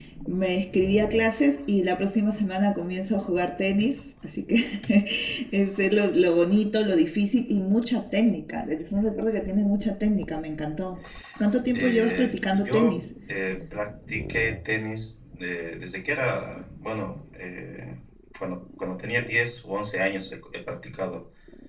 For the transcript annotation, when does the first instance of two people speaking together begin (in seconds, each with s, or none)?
11.7 s